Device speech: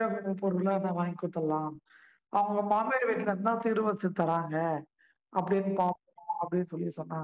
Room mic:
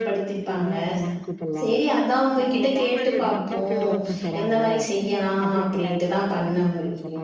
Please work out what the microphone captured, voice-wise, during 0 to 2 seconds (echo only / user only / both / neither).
both